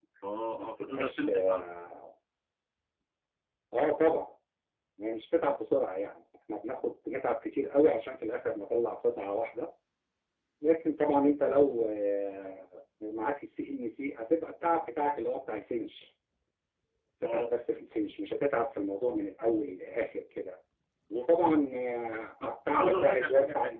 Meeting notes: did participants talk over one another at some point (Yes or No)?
Yes